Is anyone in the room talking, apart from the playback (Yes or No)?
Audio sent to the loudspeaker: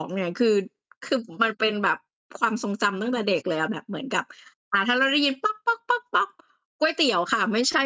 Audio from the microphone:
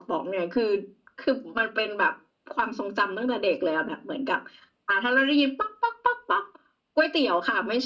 No